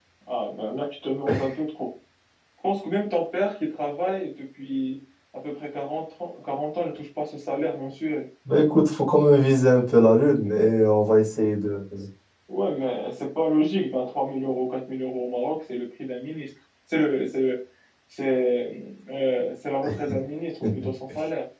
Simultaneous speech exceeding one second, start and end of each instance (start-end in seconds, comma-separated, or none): none